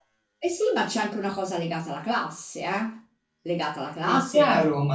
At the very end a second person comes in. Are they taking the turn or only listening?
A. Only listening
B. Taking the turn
B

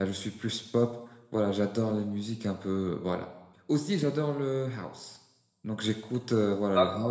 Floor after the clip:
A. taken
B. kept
B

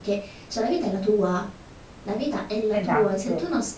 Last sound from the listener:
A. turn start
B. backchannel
B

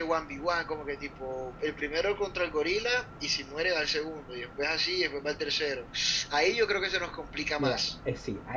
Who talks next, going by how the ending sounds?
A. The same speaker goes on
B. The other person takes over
B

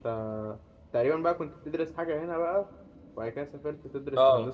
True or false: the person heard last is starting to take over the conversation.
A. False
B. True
B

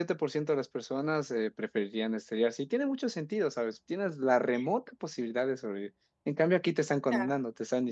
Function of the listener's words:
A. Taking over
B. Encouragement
B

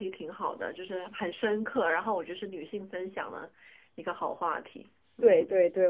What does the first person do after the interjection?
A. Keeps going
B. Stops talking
B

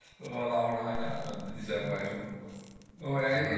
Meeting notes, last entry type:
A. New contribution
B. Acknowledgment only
B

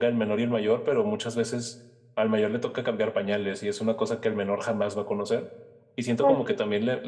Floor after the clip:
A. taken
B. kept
B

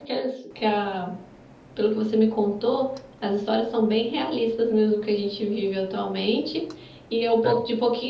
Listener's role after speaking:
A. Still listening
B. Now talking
A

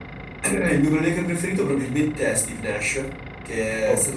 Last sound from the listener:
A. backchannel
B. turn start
A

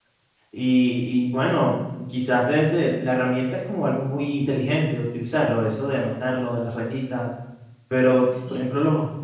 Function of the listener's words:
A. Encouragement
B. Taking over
A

